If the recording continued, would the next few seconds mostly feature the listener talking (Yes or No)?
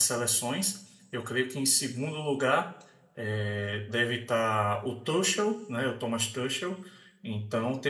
No